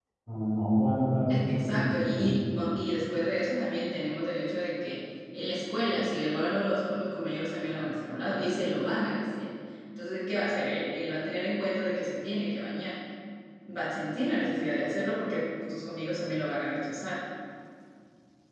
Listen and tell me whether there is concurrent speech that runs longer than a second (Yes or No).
Yes